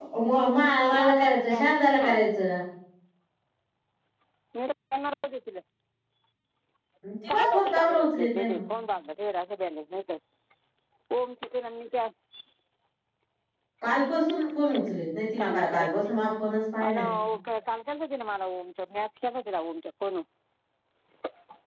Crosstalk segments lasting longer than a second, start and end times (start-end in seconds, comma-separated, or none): 7.3-8.6